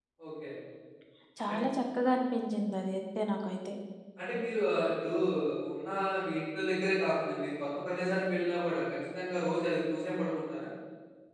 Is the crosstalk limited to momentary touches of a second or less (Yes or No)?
Yes